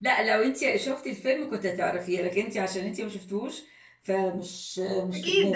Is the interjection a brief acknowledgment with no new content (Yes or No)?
No